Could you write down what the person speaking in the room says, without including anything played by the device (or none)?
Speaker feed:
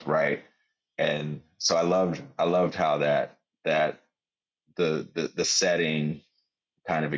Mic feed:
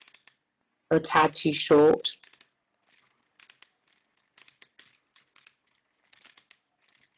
are a tad too short.